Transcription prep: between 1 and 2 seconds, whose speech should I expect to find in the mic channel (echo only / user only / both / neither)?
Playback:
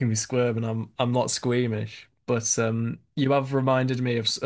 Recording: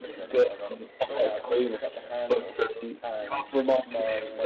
both